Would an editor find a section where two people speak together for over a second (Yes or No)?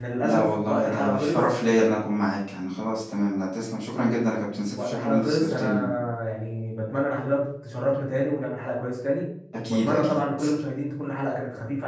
Yes